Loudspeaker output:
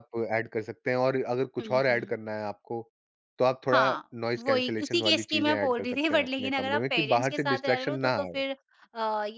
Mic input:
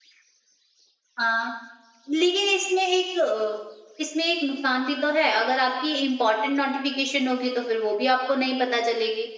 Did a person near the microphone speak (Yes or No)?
Yes